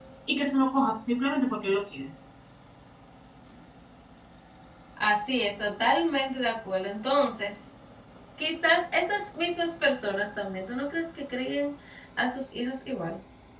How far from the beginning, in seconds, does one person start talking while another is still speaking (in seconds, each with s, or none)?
none